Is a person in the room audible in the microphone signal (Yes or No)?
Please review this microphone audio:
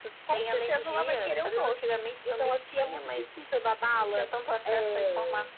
No